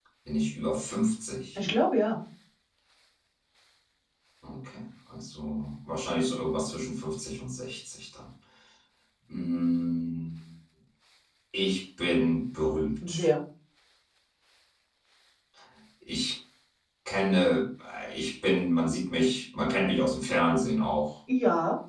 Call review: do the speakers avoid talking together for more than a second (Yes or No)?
Yes